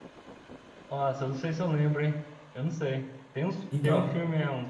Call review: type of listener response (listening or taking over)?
listening